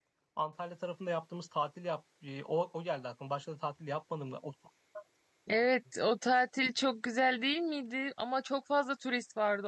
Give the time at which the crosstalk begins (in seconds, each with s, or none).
none